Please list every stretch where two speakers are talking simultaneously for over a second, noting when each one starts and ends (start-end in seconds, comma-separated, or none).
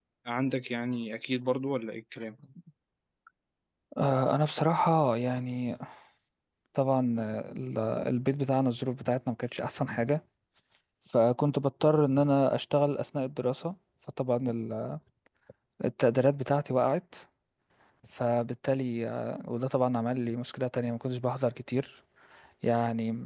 none